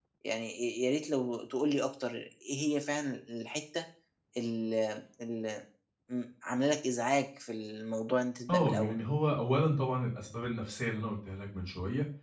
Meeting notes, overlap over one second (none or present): none